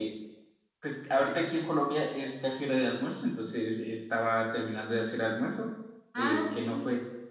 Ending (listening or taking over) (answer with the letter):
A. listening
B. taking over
A